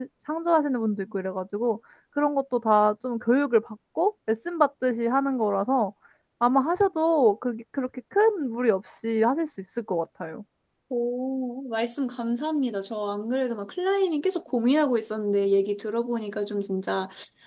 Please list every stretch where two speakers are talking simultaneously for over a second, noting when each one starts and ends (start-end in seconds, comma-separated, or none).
none